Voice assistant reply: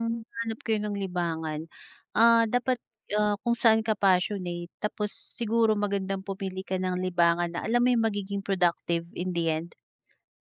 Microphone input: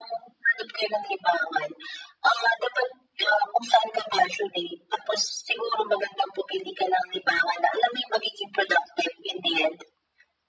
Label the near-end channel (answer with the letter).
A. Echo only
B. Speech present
A